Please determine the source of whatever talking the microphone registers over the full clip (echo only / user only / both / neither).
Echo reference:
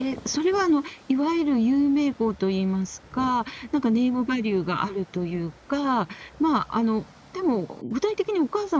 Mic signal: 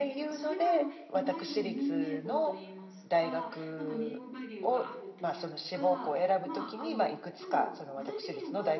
both